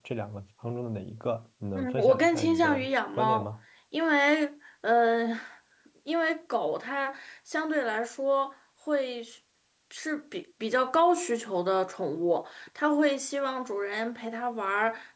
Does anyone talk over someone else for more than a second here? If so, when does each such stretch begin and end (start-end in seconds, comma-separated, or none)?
1.8-3.5